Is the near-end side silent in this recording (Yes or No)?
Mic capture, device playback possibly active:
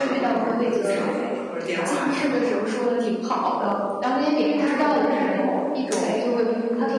No